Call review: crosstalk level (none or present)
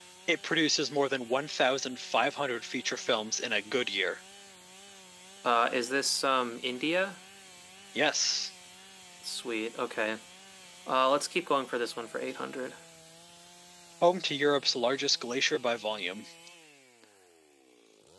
none